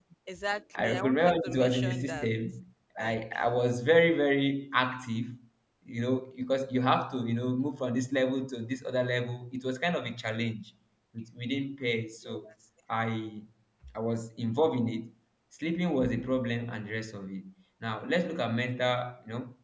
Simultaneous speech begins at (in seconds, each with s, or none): 0.8 s